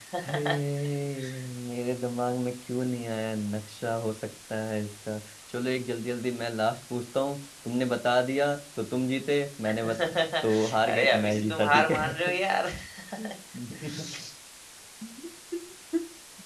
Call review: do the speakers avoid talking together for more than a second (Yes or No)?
No